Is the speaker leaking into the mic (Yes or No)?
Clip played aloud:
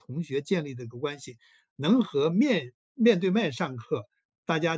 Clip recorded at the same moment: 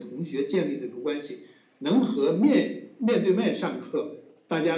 Yes